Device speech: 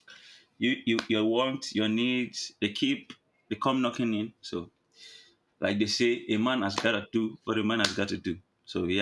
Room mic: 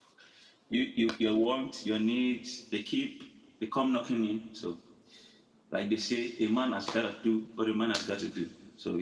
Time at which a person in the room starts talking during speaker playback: none

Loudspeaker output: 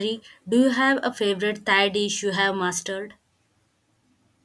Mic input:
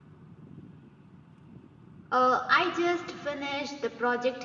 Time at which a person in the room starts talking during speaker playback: 2.1 s

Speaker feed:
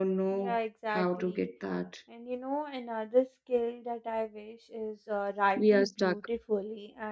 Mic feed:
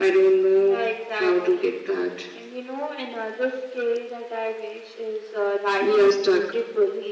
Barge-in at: none

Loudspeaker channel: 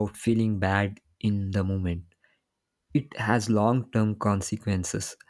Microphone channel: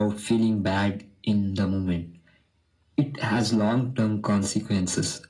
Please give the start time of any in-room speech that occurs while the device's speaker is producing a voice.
none

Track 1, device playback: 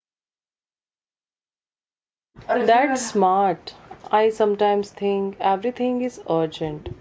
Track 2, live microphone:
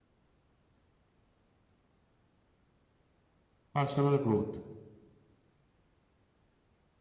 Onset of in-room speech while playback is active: 3.7 s

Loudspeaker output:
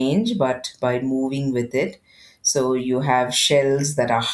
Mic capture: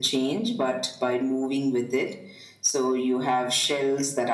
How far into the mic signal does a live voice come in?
none

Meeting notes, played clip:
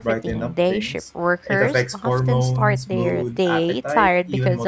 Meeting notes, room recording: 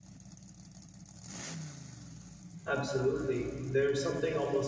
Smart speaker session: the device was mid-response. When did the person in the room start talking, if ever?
2.7 s

